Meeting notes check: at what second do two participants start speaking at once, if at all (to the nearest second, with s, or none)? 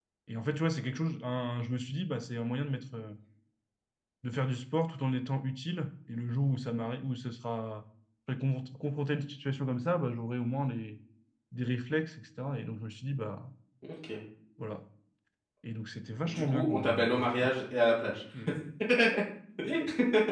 16 s